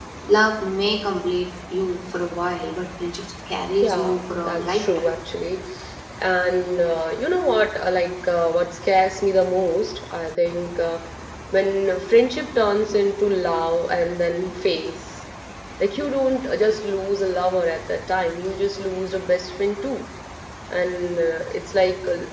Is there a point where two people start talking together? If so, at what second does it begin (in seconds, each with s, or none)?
3.8 s